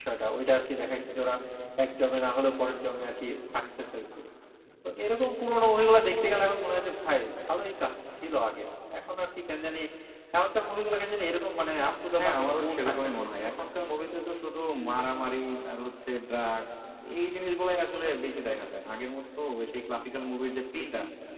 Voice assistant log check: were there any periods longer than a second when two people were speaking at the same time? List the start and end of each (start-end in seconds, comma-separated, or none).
12.2-14.1